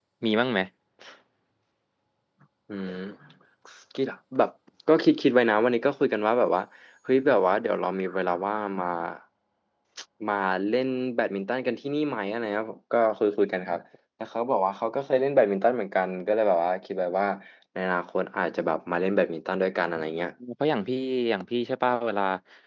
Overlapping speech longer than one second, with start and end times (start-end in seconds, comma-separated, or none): none